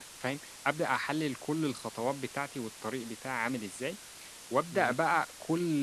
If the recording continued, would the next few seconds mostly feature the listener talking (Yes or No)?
No